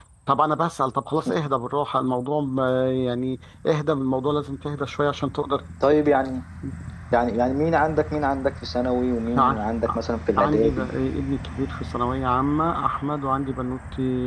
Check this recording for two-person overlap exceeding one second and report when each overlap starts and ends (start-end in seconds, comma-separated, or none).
none